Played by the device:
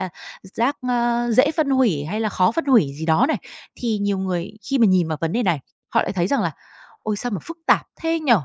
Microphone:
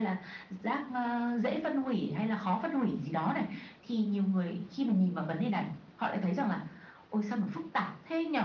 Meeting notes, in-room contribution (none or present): none